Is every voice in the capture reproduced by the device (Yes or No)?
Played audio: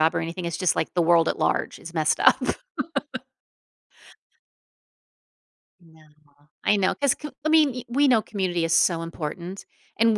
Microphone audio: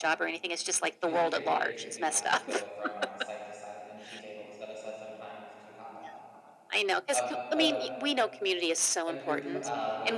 No